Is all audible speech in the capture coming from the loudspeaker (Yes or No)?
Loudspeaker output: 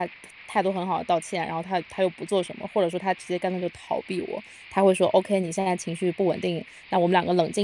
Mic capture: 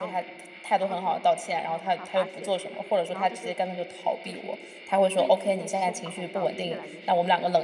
No